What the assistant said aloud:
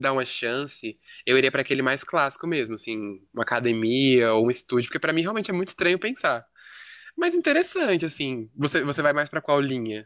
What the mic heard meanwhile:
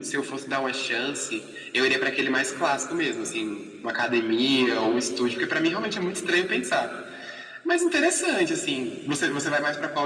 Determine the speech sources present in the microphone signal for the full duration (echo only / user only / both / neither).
echo only